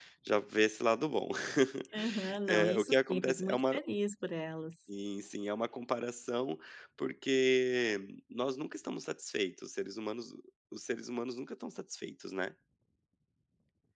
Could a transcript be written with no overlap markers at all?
No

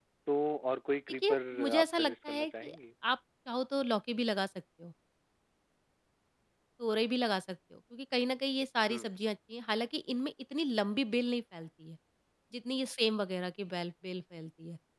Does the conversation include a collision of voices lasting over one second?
Yes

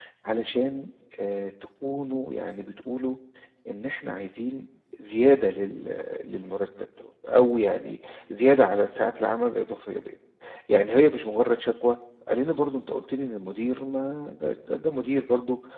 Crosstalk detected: No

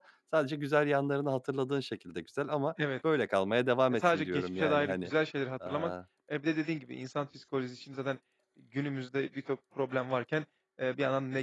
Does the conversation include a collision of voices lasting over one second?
Yes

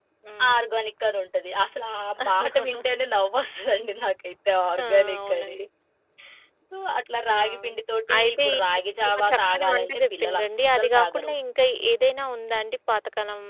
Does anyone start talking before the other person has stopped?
Yes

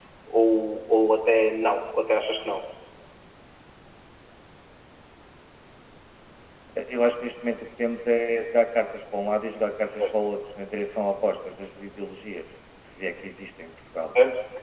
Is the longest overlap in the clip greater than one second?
No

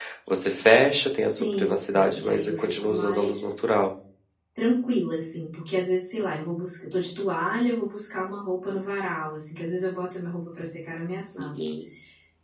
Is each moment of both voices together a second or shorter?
No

